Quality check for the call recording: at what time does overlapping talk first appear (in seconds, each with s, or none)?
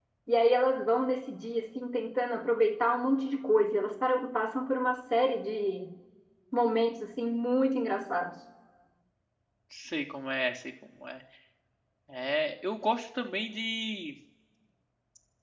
none